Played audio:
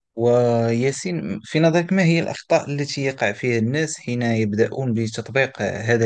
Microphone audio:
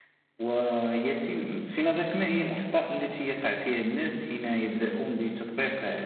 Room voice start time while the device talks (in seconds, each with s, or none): none